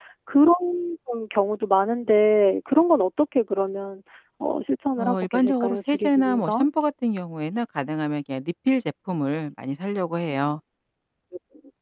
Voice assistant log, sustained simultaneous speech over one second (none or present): present